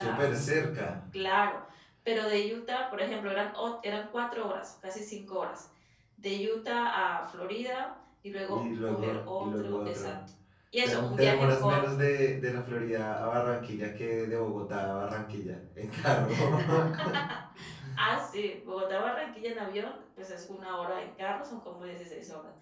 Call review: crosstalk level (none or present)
present